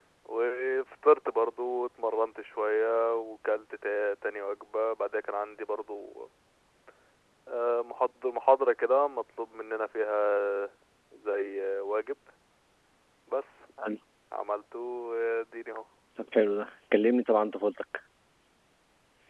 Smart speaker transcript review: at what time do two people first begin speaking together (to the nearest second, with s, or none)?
none